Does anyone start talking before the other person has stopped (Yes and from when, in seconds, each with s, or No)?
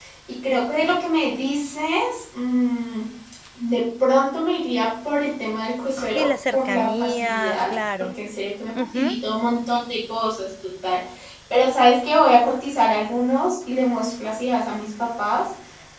Yes, from 6.1 s